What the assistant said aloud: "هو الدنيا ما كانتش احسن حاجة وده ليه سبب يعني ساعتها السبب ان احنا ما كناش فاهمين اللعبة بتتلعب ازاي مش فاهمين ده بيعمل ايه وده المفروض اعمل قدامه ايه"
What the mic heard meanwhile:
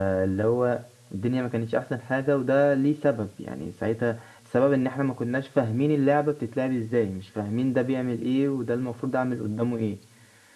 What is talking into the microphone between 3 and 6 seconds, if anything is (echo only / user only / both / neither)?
echo only